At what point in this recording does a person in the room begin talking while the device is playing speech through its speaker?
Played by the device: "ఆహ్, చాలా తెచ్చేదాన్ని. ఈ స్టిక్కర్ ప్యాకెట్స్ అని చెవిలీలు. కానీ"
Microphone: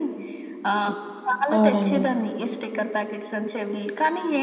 1.5 s

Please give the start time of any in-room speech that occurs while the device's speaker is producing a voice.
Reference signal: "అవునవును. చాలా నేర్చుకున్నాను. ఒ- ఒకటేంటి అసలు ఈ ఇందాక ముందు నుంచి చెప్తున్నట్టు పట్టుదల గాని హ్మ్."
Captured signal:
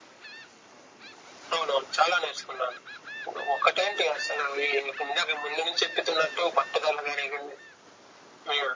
none

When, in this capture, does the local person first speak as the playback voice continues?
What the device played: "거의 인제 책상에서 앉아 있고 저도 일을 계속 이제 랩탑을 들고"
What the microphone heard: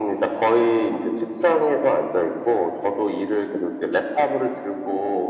none

